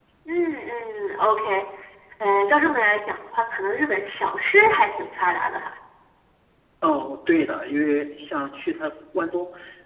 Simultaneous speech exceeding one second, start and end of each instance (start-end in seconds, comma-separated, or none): none